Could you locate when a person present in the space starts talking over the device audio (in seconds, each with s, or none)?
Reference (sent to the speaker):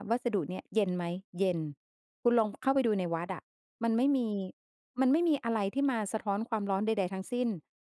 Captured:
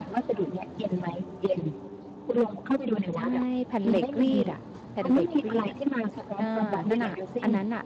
3.2 s